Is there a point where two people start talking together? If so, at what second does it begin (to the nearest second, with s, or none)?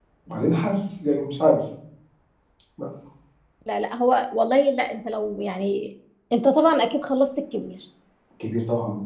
none